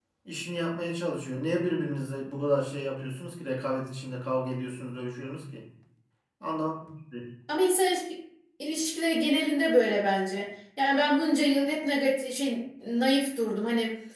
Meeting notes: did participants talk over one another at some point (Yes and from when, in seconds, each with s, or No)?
No